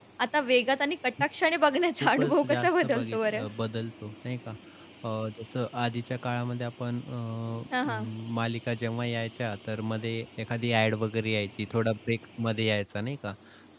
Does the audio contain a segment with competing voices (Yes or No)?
Yes